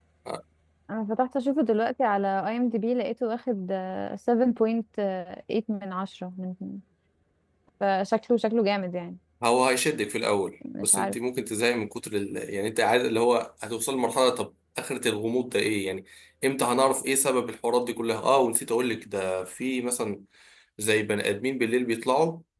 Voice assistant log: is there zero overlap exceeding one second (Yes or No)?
Yes